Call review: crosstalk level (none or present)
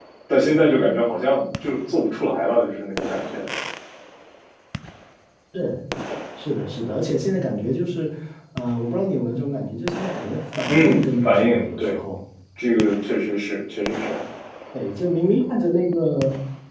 present